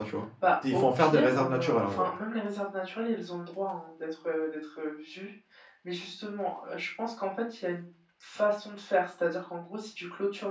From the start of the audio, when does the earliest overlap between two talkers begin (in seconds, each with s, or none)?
0.7 s